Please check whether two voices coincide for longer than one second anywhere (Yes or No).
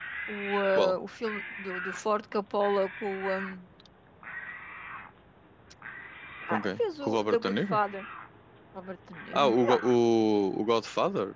Yes